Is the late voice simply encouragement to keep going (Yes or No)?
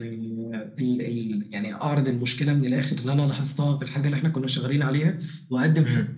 Yes